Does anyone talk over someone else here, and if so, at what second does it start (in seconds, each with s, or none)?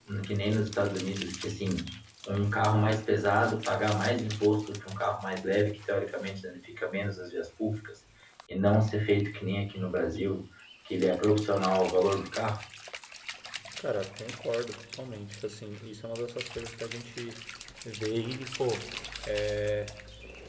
none